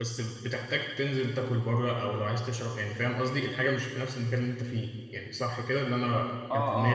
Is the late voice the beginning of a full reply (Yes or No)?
Yes